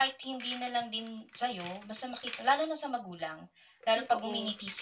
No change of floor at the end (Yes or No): Yes